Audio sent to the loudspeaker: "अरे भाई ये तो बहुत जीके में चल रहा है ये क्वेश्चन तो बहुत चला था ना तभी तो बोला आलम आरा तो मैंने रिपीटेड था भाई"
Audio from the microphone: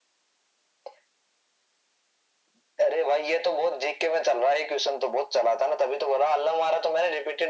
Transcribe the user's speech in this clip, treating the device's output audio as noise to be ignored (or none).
none